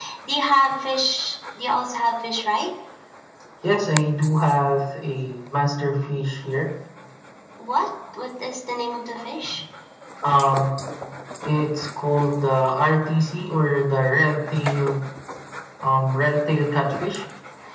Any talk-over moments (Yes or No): No